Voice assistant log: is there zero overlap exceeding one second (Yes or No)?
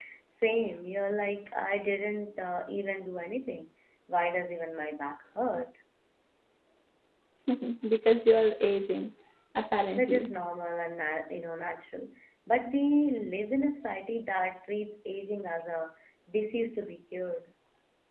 Yes